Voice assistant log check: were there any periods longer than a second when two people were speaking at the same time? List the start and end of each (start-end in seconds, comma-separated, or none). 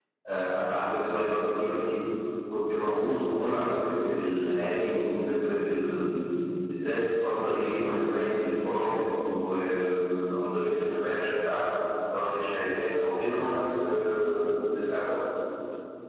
none